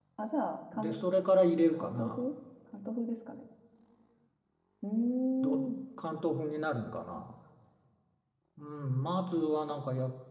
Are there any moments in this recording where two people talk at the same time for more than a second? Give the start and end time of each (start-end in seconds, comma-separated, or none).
none